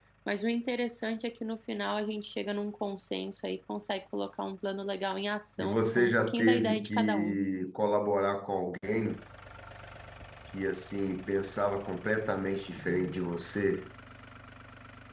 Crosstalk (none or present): present